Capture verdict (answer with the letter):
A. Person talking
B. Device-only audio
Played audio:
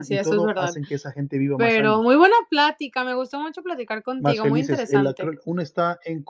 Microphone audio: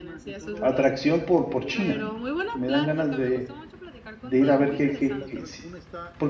A